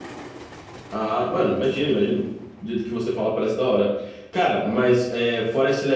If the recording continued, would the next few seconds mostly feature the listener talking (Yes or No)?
No